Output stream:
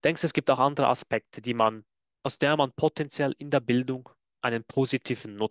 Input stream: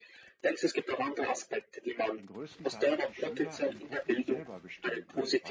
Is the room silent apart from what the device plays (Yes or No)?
No